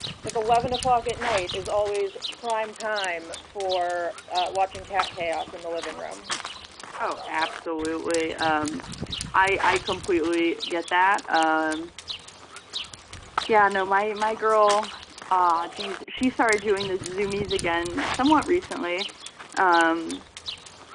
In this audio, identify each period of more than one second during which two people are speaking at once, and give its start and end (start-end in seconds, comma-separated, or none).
none